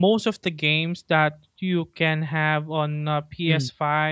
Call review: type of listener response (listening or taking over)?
listening